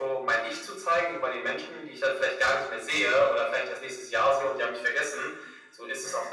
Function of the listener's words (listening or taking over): listening